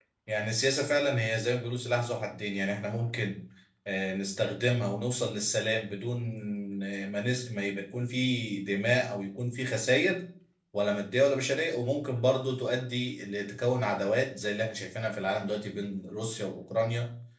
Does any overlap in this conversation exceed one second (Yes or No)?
No